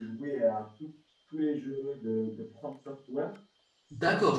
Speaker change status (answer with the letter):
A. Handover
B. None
A